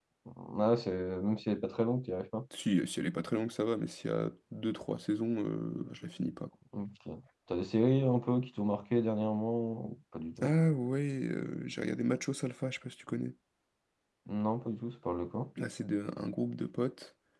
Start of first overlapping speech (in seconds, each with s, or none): none